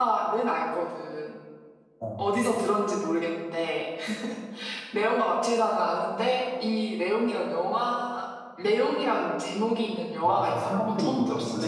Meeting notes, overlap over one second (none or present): present